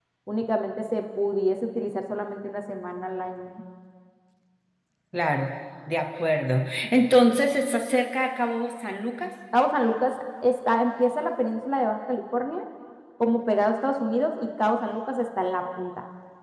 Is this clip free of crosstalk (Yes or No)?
Yes